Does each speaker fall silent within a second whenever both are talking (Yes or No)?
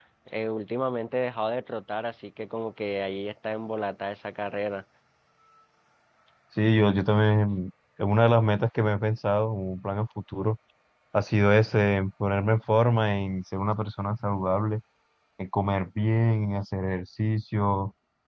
Yes